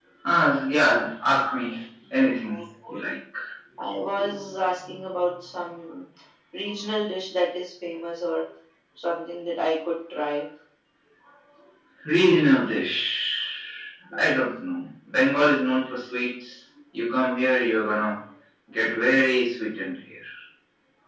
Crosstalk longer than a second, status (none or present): none